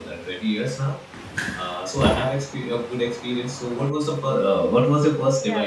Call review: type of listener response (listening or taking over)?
taking over